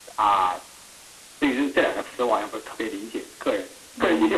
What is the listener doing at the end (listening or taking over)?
taking over